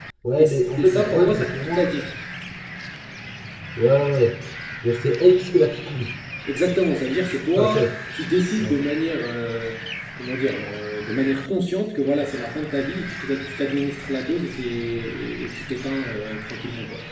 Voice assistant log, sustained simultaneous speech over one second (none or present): present